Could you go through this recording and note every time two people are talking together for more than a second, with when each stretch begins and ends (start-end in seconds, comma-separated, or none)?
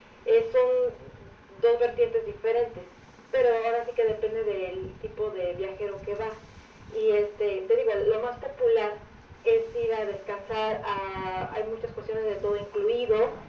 none